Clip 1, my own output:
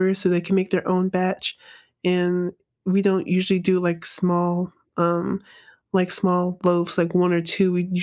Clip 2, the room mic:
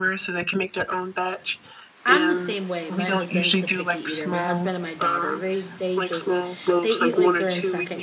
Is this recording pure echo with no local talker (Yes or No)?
No